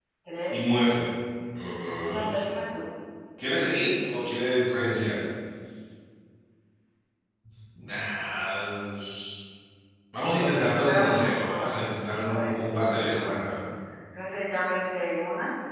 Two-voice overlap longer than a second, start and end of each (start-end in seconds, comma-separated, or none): 10.4-13.5